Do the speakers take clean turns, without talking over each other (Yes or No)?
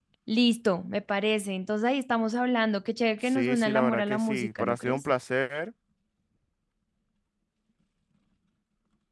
No